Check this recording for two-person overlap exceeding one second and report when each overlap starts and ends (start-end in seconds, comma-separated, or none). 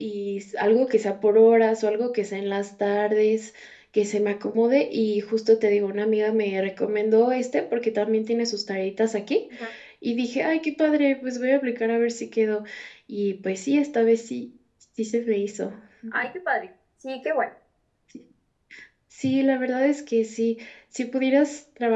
none